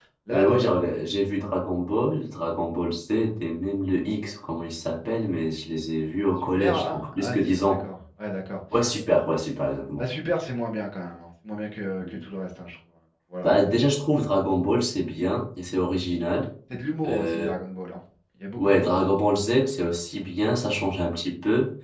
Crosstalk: present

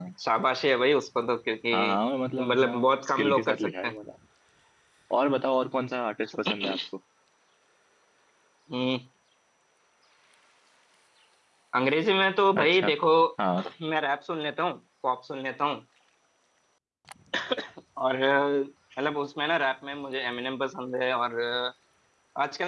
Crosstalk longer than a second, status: present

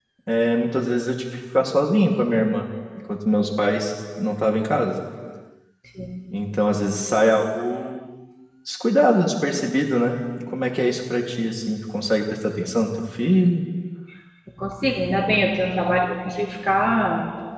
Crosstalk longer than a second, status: none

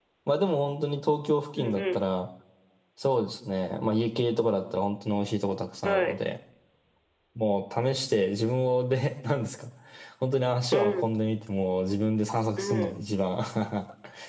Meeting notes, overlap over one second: none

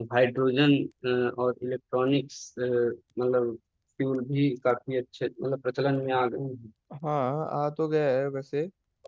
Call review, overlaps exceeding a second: none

